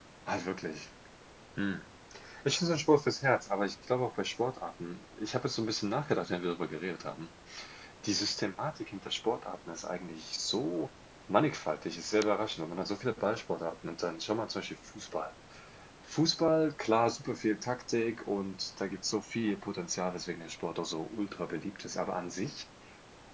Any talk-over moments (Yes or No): No